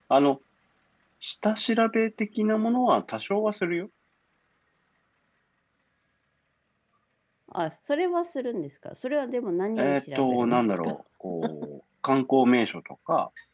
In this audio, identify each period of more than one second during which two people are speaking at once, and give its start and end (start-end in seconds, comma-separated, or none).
9.8-11.0